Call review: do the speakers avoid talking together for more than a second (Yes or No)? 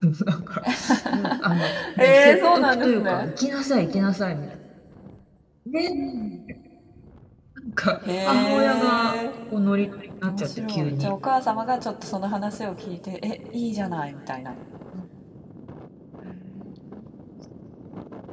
No